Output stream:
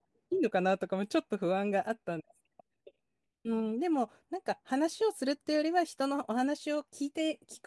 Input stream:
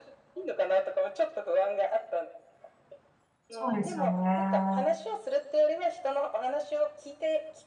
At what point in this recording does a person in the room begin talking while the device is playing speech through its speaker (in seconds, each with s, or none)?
3.5 s